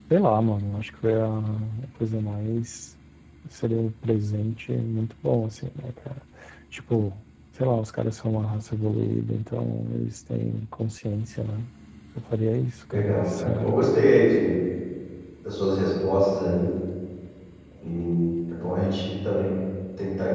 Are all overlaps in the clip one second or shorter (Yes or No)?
No